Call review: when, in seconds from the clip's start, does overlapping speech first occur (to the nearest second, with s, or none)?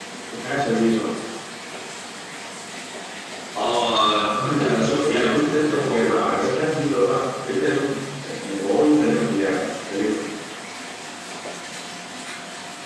4 s